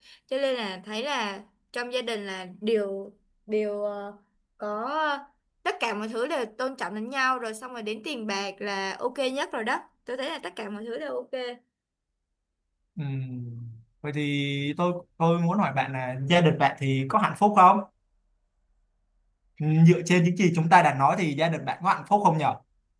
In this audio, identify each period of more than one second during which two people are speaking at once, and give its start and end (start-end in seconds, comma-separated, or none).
none